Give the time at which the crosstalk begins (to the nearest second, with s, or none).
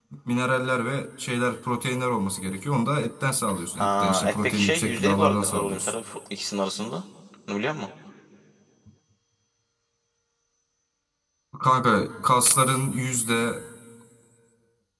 4 s